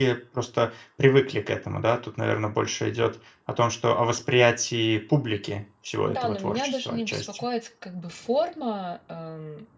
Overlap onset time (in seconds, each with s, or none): 6.1 s